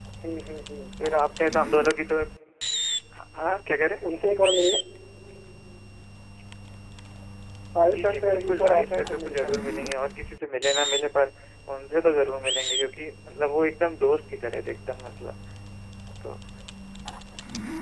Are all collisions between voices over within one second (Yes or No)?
No